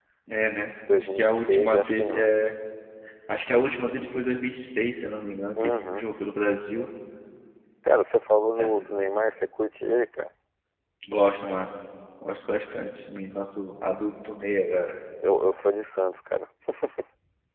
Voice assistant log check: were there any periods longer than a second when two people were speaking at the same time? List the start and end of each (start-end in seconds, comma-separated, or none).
1.0-2.3